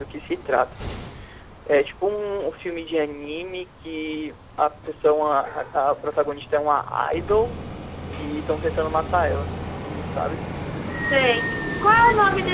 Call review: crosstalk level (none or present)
none